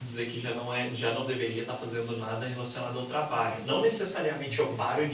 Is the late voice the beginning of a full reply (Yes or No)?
No